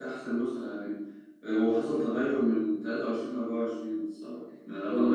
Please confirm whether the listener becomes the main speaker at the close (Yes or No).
Yes